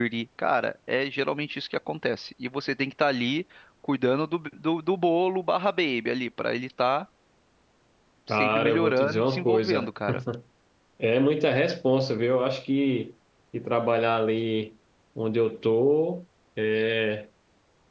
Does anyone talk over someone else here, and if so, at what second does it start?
8.3 s

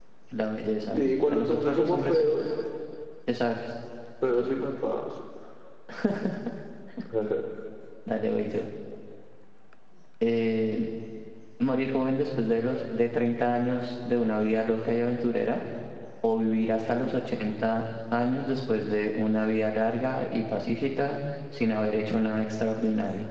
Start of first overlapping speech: 0.9 s

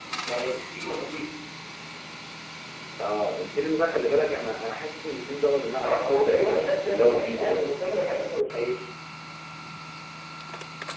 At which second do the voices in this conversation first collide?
5.8 s

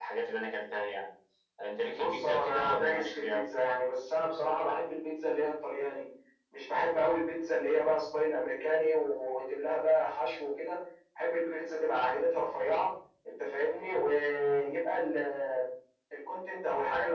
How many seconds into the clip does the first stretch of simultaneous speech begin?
1.9 s

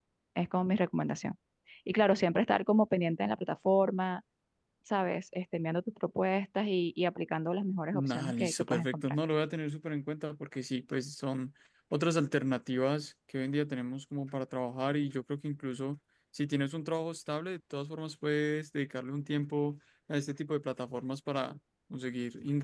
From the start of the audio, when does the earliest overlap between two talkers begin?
7.9 s

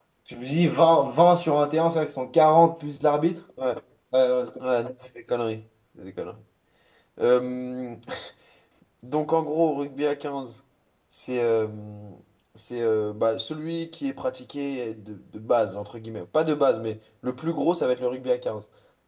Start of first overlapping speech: none

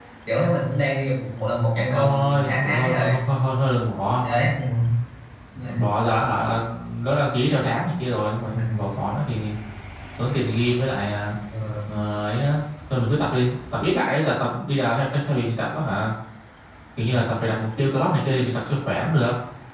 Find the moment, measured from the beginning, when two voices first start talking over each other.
1.9 s

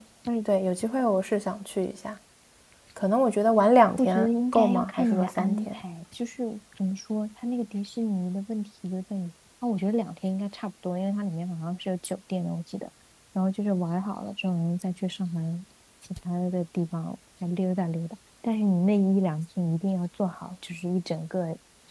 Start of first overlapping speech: 4.0 s

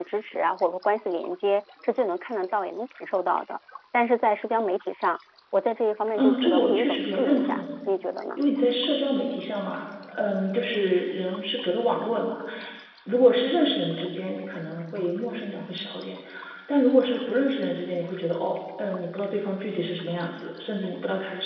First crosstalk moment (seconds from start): 6.1 s

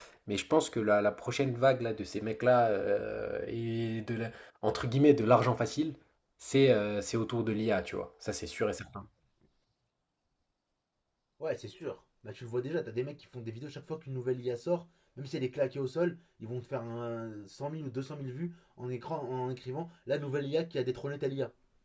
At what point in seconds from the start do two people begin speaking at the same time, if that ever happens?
none

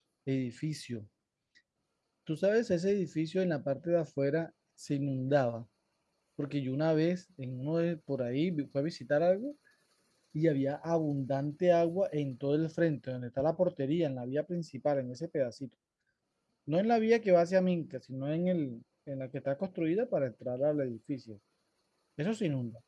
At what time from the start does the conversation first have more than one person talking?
none

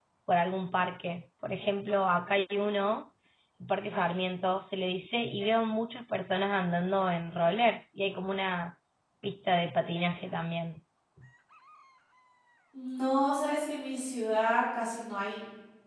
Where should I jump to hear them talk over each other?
none

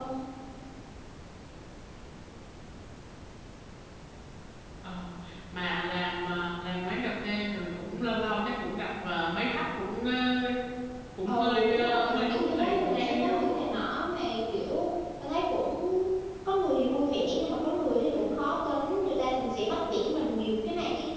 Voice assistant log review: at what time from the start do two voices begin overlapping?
11.2 s

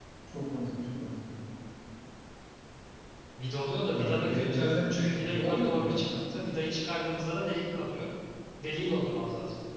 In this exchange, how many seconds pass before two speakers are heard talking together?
3.9 s

